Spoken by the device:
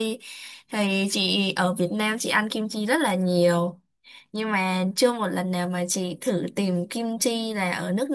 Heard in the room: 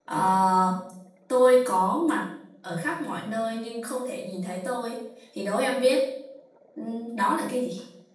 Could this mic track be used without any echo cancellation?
Yes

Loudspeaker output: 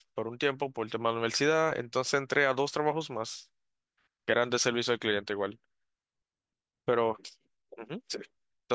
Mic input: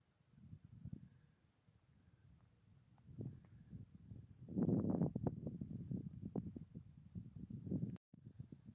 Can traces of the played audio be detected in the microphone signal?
No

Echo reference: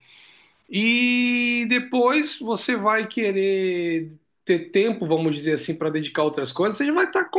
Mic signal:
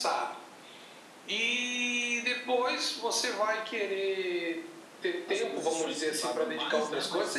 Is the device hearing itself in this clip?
Yes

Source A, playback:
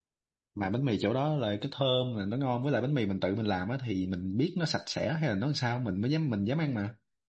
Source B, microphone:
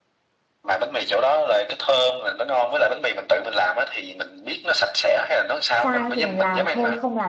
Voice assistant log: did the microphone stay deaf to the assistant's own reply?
No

